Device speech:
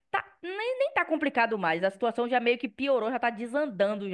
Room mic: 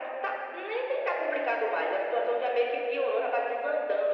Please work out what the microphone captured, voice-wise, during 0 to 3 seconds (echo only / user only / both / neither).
echo only